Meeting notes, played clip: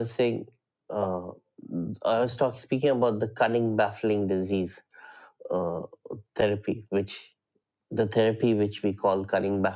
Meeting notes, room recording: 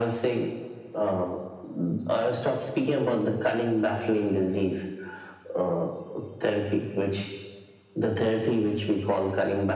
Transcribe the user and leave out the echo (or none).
none